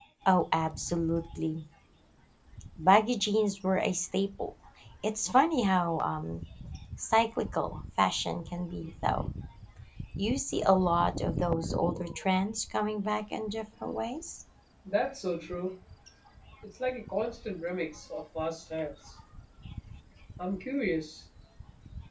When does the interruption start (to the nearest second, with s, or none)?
none